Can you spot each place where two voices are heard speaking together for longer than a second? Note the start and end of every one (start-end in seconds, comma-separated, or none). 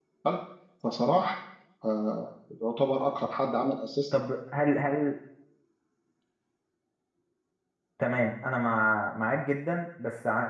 none